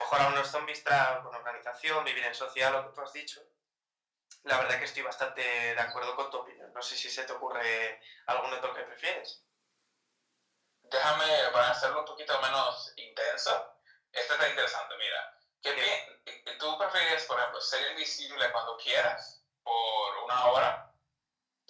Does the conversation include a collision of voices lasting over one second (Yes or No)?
No